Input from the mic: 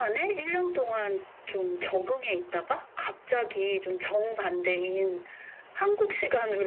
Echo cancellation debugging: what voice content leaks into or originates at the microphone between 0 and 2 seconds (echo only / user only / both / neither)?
echo only